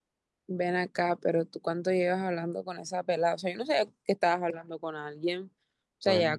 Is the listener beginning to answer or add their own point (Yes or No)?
No